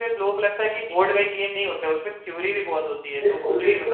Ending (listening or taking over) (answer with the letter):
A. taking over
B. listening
A